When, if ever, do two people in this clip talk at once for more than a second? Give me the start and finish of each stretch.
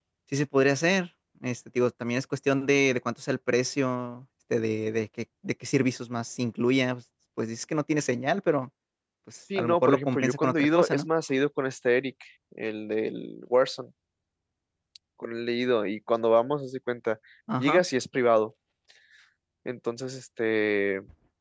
9.6-11.1

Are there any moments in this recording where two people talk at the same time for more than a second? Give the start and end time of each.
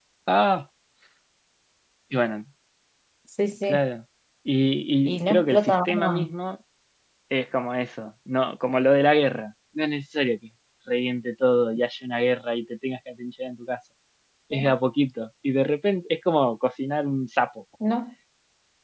5.0-6.3

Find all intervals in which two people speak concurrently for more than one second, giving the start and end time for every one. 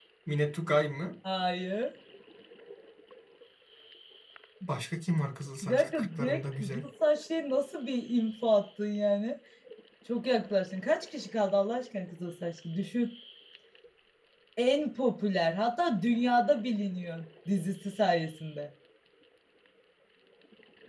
5.6-6.8

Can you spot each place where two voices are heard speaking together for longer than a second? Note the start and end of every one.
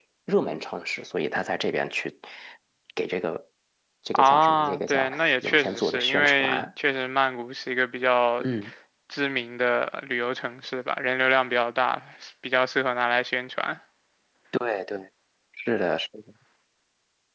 4.1-6.6

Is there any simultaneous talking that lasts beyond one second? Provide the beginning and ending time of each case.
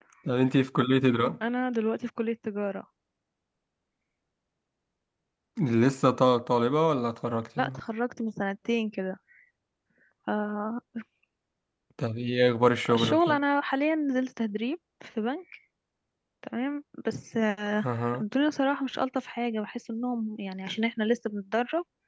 none

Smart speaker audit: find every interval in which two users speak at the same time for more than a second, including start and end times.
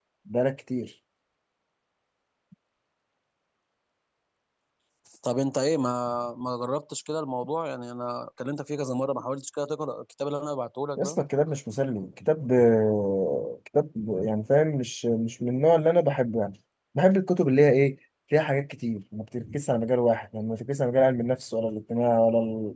none

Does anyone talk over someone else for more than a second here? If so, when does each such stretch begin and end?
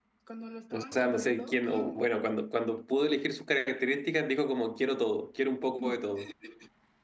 0.7-2.2

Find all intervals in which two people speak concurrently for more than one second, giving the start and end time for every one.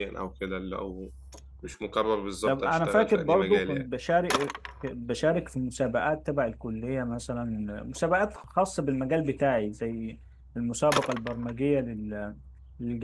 2.5-3.9

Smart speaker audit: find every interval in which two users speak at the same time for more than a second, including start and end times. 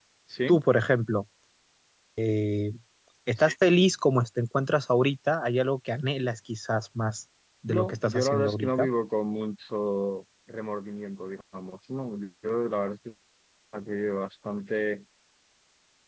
7.7-8.9

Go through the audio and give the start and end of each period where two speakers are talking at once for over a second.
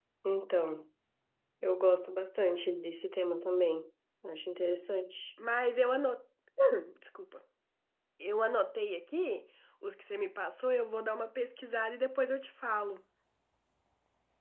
none

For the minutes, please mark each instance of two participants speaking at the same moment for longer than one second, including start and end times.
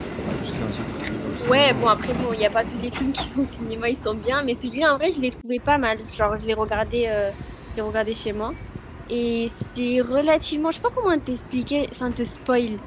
none

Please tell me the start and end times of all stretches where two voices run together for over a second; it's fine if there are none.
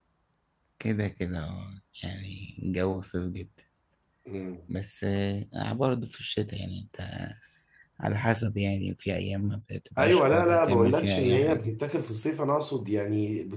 10.0-11.7

